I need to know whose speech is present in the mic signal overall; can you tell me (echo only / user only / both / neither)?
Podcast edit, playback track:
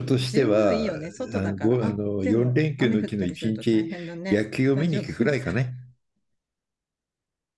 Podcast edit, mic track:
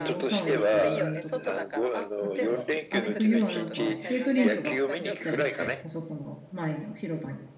both